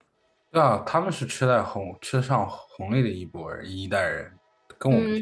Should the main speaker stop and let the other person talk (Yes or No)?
Yes